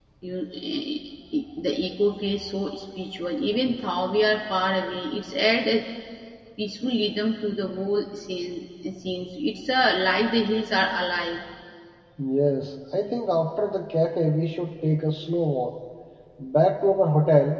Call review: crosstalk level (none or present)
none